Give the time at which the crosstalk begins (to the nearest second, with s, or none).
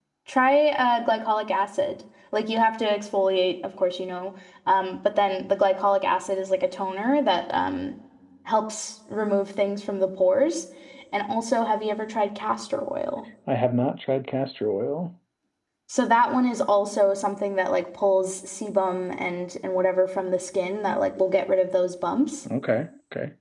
none